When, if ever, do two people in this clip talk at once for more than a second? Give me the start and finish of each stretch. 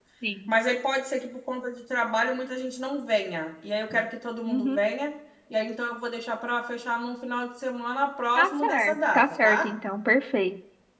8.4-9.7

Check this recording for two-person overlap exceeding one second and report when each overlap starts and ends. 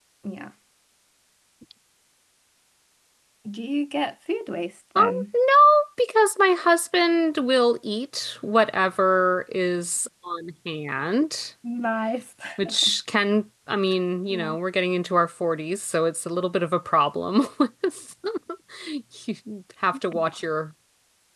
none

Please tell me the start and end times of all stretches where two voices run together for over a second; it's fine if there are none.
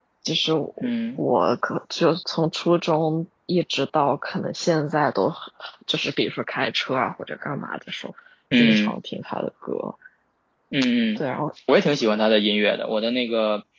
none

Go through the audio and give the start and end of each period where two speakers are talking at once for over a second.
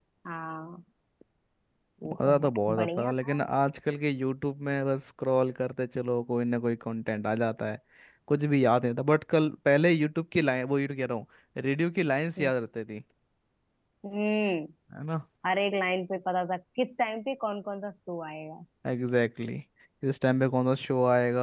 2.1-3.4

